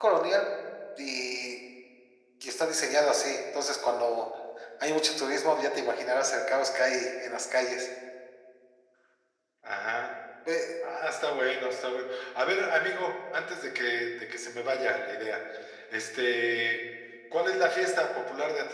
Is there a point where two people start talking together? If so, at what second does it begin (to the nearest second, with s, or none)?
none